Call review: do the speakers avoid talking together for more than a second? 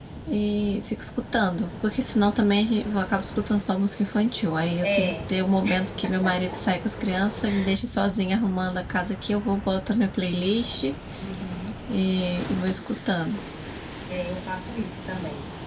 Yes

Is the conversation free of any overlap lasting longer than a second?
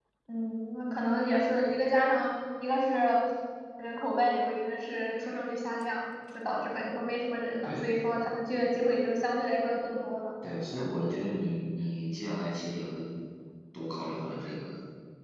Yes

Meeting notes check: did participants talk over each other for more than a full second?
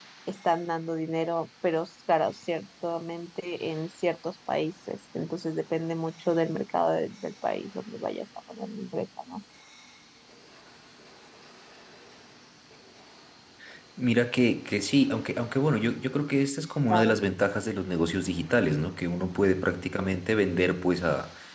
No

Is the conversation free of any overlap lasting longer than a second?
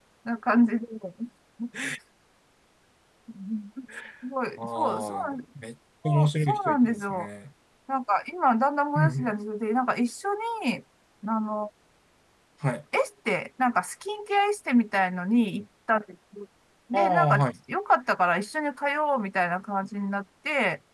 No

